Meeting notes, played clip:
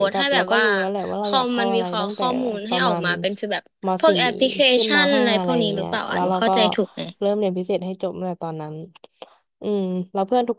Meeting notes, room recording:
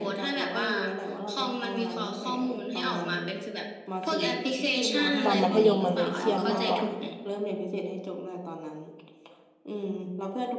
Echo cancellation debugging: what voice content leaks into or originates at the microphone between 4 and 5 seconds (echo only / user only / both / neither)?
echo only